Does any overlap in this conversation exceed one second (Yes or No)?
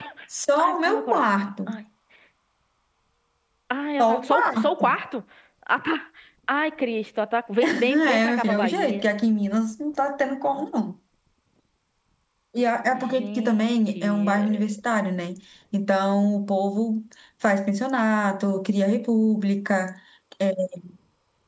Yes